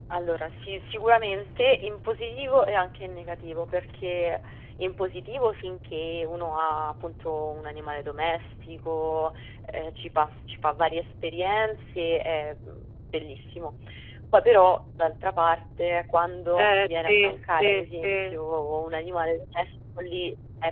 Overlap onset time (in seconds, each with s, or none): 16.5 s